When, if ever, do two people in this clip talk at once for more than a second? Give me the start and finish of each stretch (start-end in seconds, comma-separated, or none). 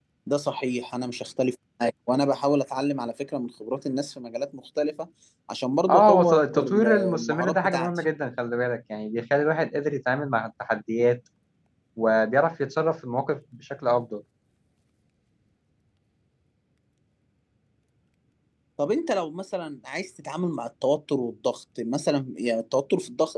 5.9-7.9